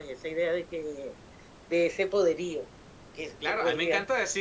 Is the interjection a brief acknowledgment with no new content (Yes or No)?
No